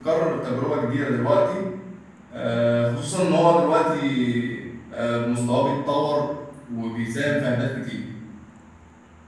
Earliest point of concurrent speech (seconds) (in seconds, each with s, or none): none